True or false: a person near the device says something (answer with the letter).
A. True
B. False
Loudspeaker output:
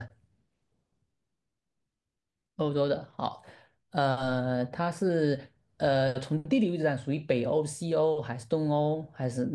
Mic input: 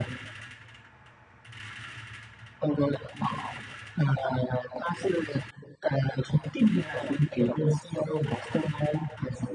B